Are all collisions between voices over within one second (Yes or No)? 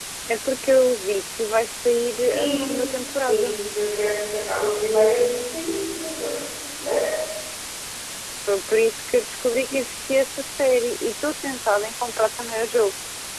No